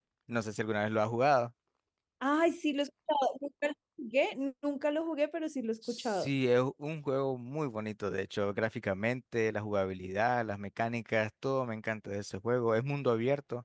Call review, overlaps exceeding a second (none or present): none